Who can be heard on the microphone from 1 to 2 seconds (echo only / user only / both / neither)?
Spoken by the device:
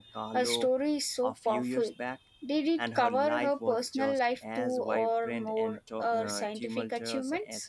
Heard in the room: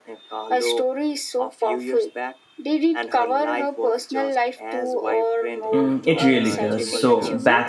echo only